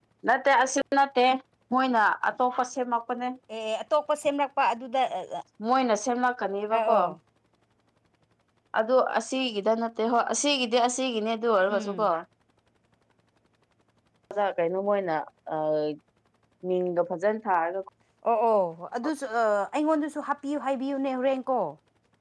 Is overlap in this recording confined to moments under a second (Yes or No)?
Yes